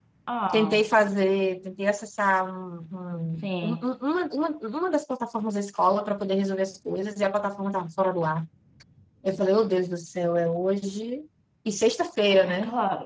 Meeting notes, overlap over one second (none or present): none